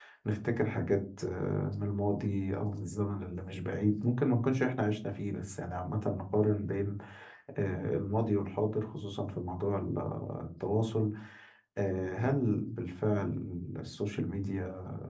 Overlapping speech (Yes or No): No